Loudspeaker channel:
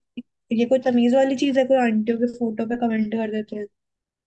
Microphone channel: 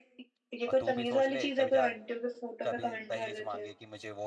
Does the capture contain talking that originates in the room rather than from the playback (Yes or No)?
Yes